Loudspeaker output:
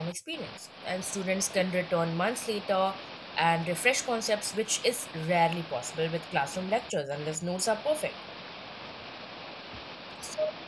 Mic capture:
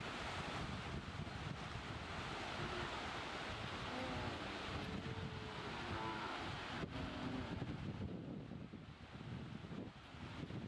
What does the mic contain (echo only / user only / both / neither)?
neither